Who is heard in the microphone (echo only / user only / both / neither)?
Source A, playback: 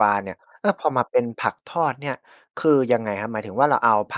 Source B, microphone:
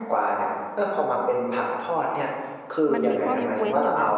both